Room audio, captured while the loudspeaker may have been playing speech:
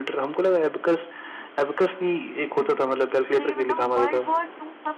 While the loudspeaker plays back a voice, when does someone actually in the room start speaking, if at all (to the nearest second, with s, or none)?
3 s